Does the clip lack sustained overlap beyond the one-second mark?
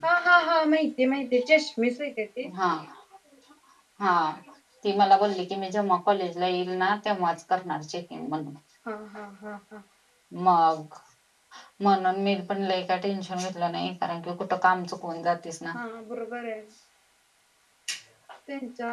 Yes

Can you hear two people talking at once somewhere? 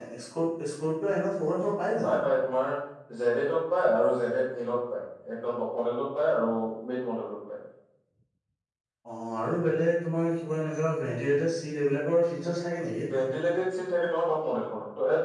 No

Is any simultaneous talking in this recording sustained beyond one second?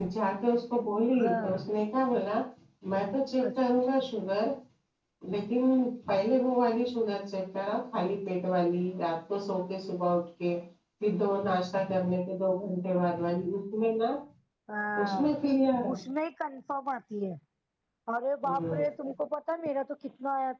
No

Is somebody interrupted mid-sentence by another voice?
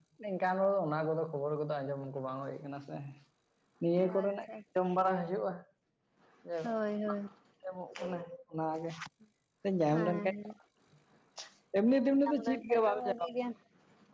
Yes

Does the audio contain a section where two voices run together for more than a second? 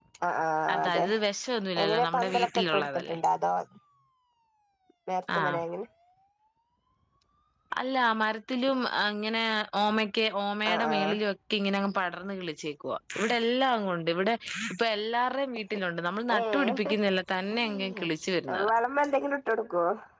Yes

